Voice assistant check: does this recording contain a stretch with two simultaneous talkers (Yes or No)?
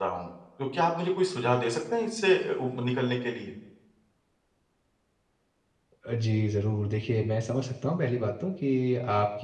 No